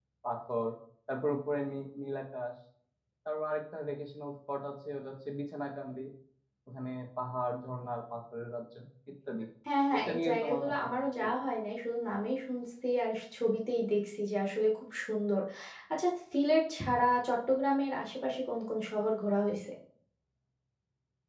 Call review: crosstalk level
present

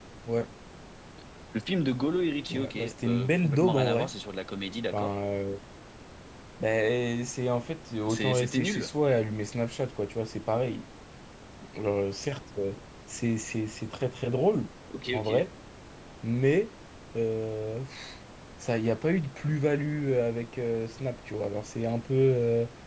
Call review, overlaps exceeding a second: present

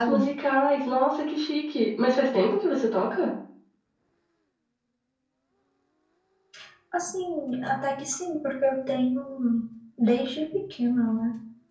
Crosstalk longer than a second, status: none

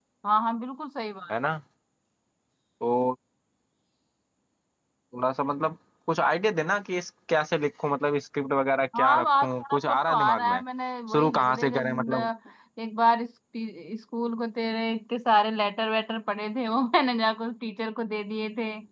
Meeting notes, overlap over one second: present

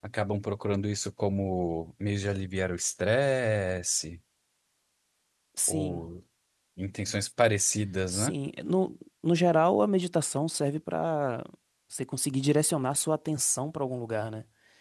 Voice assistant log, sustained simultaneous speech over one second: none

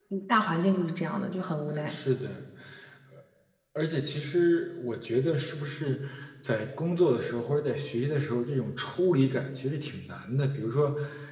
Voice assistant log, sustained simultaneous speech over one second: none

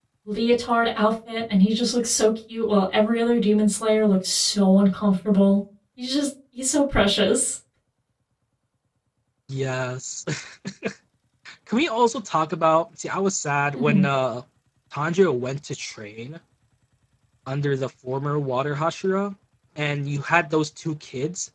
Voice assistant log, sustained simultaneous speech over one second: none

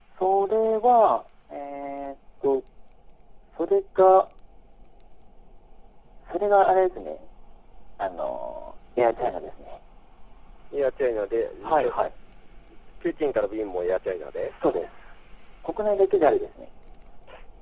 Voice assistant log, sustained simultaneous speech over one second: none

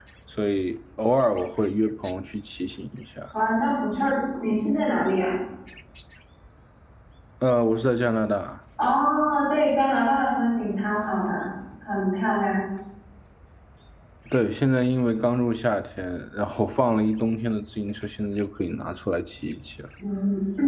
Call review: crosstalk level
none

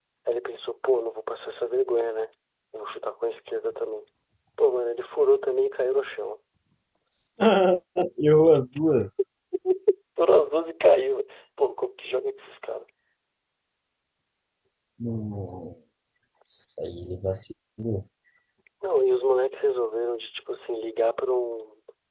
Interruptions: none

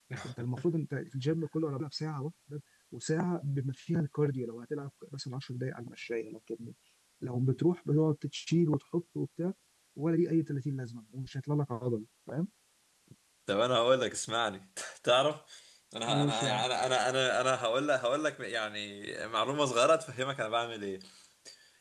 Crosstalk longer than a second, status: none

